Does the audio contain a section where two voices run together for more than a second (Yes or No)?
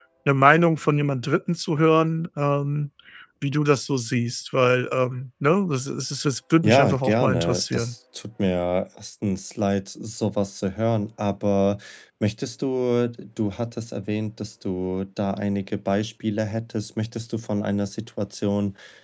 Yes